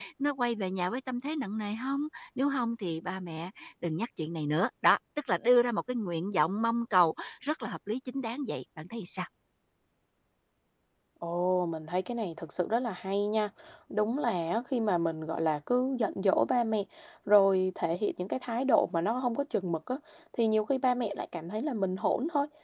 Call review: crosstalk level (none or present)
none